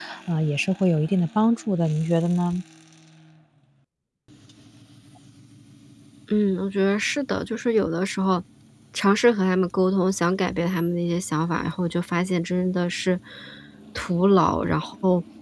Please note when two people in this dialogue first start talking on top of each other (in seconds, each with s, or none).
none